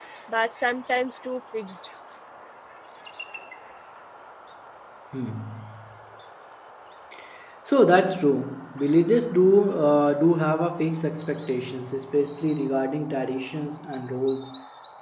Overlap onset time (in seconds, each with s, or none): none